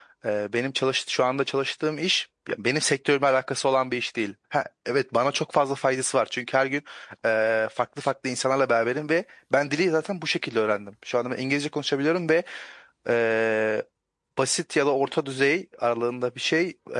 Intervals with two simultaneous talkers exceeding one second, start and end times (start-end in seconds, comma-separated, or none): none